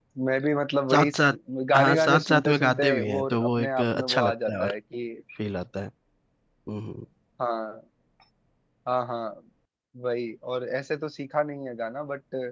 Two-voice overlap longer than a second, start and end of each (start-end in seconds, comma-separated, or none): 1.7-4.7